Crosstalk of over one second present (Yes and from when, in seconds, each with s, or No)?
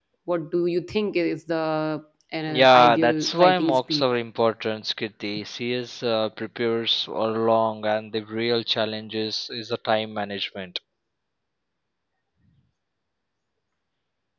Yes, from 2.5 s